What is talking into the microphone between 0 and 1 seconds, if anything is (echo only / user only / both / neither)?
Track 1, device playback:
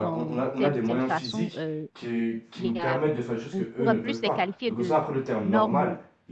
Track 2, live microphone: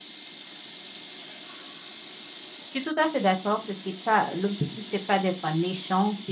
neither